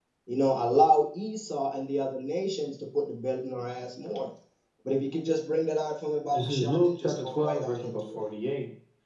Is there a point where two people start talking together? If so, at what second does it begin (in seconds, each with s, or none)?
6.3 s